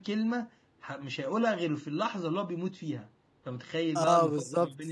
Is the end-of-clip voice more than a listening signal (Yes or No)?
Yes